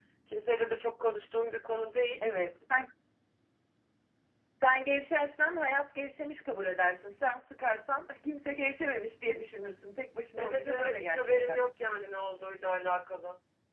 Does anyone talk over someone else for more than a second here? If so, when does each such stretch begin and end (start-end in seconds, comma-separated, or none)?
10.4-11.6